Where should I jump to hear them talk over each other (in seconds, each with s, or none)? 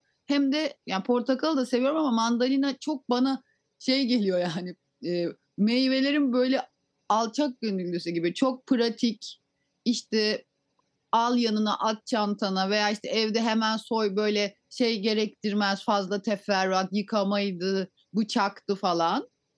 none